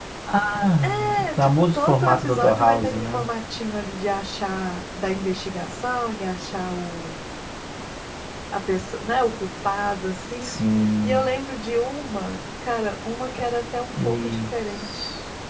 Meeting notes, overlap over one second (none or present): present